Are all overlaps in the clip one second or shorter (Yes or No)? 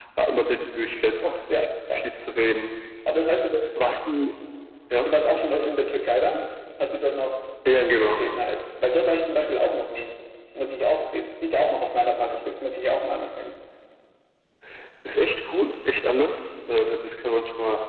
Yes